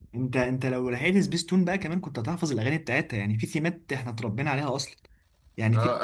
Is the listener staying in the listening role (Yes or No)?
No